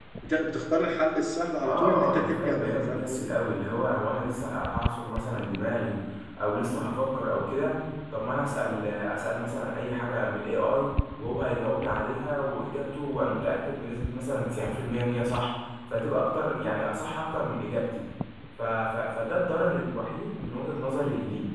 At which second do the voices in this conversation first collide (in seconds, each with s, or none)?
1.6 s